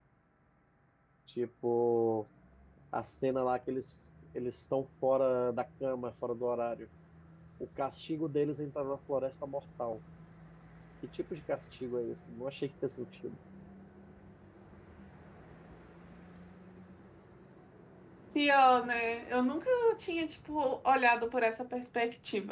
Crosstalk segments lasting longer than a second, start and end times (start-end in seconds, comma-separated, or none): none